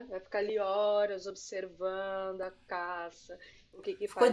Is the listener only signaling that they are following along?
Yes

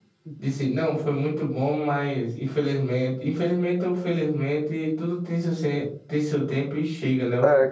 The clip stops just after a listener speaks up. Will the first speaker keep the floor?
No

